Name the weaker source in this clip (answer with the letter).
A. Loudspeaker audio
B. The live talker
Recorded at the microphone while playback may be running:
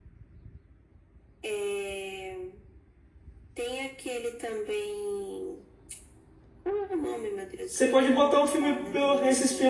A